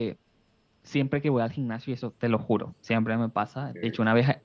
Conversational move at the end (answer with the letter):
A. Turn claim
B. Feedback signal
B